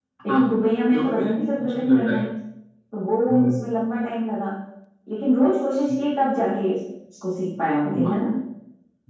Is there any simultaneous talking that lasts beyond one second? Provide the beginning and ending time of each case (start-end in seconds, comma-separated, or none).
0.9-2.2